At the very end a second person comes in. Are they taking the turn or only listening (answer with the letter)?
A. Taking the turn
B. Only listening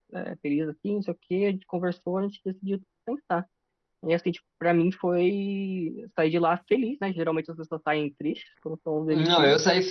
A